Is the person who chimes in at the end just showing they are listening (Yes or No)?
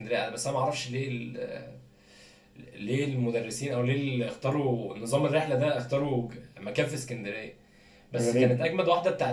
Yes